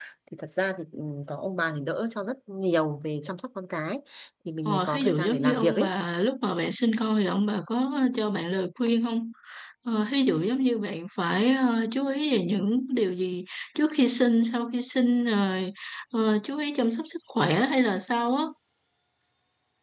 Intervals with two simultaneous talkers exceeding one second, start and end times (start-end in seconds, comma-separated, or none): 4.6-5.9